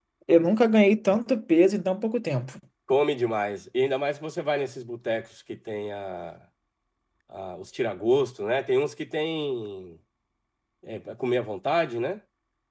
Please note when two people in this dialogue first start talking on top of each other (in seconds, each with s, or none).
none